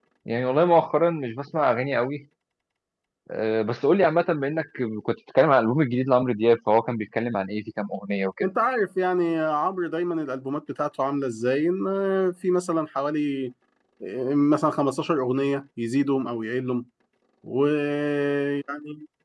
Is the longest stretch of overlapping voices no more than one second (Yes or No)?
Yes